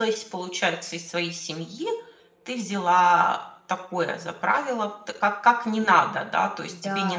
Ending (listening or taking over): listening